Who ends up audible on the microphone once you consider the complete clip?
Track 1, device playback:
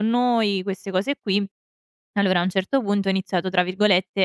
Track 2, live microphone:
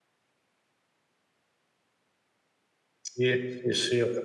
user only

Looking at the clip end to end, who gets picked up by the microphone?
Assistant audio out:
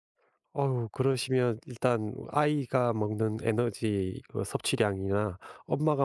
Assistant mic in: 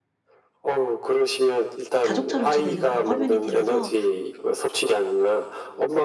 both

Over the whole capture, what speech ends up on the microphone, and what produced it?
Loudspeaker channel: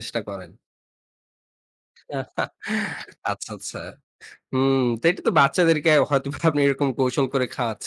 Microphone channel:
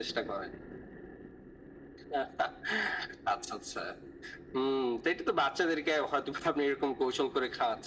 echo only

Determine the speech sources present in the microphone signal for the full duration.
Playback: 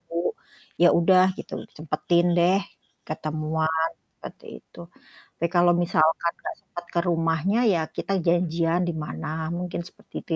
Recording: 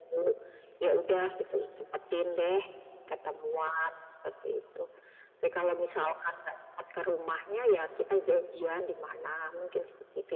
echo only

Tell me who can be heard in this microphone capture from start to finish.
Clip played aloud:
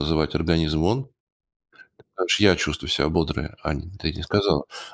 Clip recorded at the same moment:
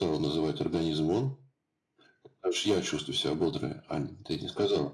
echo only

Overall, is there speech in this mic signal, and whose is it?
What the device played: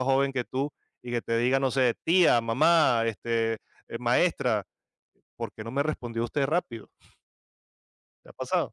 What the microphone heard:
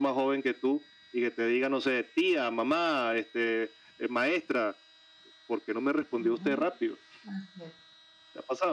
both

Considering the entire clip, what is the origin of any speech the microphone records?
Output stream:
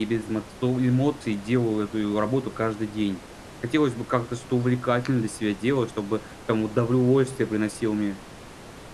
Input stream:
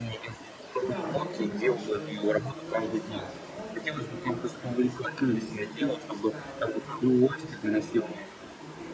both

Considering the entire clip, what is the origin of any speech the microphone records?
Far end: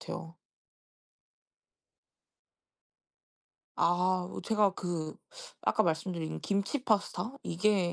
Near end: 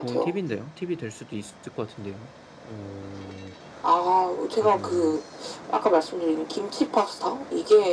both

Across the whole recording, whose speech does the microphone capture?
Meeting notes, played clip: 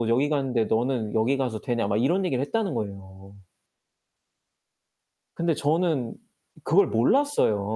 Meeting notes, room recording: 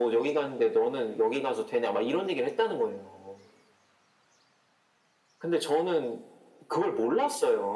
echo only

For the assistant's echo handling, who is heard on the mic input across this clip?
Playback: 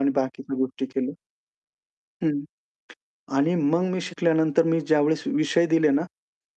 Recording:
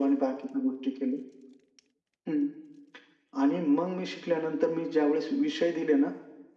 echo only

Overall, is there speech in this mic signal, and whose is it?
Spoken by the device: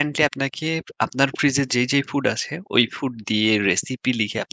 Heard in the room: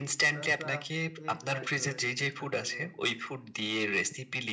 both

